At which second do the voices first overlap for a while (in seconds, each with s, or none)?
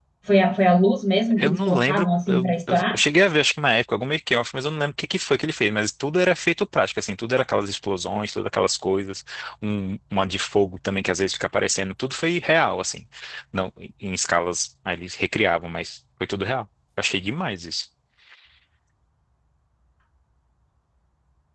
1.3 s